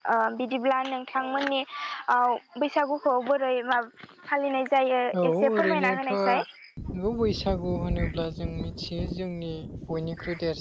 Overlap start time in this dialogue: 5.1 s

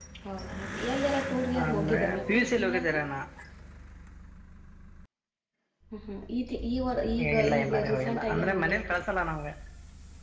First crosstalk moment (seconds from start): 1.6 s

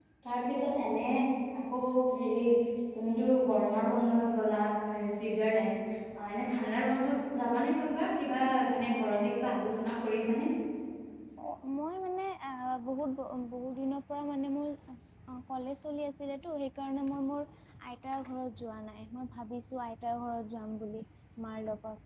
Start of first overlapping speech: none

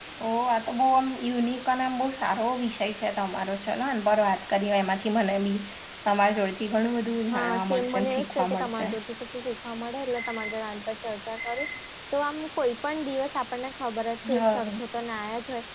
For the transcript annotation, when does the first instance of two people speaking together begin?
7.3 s

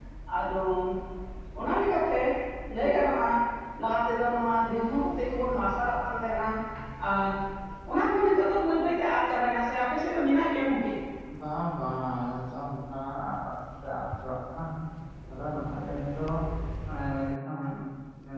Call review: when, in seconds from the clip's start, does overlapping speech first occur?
none

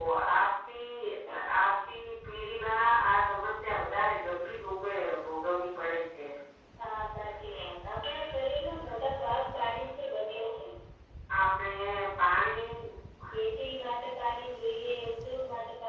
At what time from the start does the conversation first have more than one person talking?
none

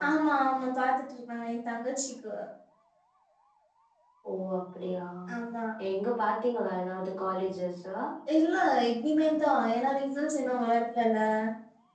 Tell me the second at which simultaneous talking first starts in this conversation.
none

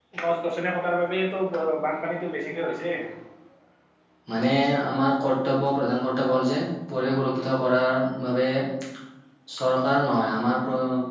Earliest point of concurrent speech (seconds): none

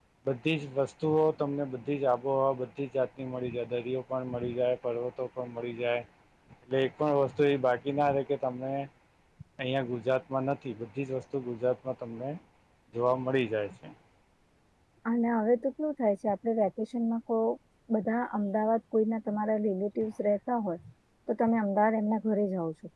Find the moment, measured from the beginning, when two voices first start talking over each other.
none

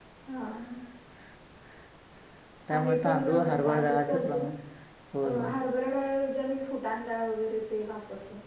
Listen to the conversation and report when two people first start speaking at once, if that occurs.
2.7 s

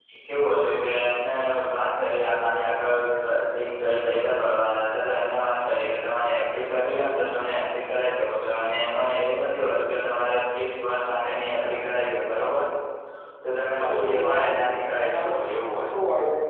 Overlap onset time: 13.8 s

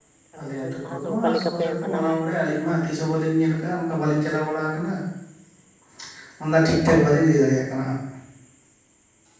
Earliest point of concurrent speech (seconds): 0.6 s

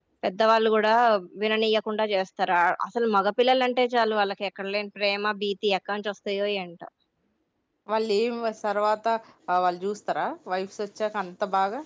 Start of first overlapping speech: none

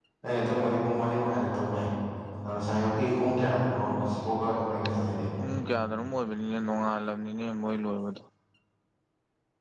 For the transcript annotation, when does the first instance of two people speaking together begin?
none

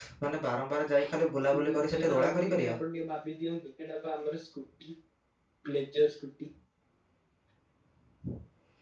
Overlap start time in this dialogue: 1.5 s

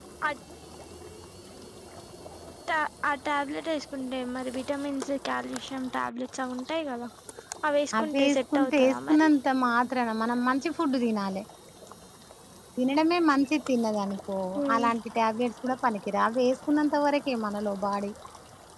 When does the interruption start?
8.0 s

